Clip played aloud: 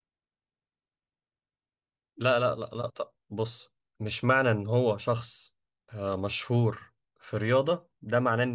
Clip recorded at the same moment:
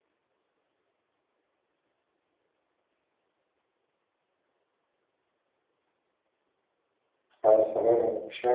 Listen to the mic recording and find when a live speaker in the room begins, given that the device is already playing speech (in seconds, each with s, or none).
7.4 s